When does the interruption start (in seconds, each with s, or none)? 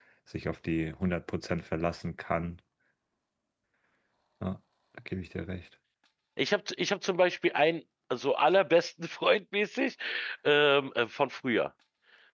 none